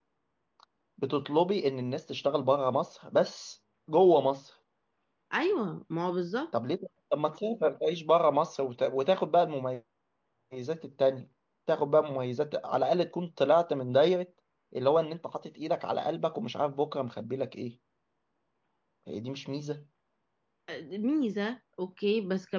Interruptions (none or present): none